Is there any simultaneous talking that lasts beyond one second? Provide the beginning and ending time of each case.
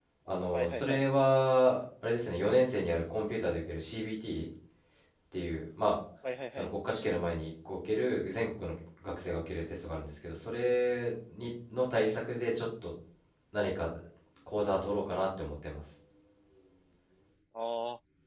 none

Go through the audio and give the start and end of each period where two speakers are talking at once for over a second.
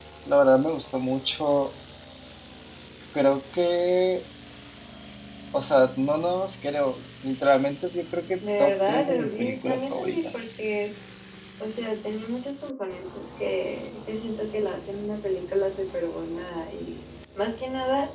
8.6-10.3

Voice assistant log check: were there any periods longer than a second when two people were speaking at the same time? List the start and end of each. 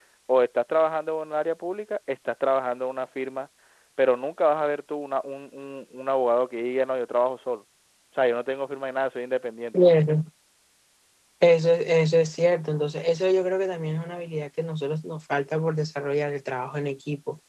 none

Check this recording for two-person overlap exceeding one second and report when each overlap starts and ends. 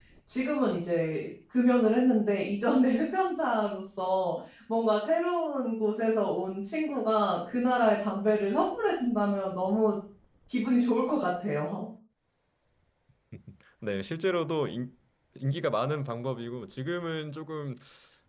none

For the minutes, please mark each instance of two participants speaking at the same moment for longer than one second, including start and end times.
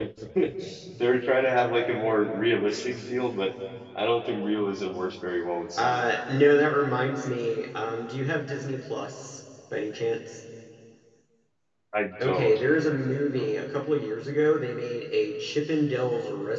none

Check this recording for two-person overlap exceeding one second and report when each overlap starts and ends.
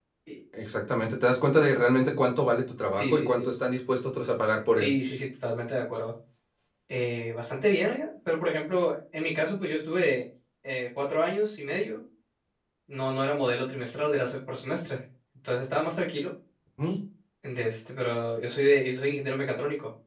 none

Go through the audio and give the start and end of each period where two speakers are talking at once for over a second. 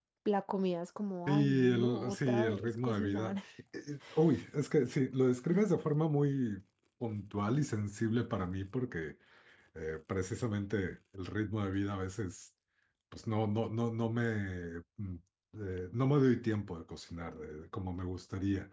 1.3-3.4

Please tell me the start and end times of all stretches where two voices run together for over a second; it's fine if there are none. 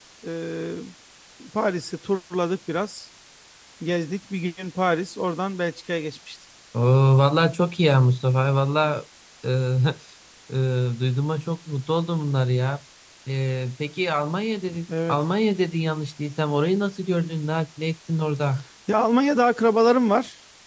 none

